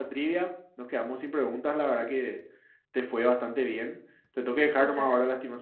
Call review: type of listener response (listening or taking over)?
listening